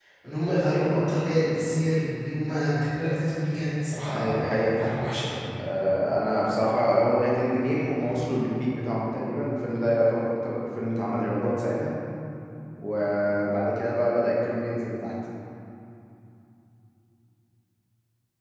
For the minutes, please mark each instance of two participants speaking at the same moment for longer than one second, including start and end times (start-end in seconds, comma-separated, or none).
none